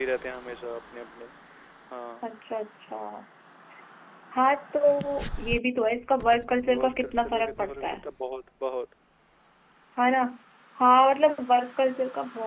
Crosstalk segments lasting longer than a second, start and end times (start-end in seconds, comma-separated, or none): 6.8-8.0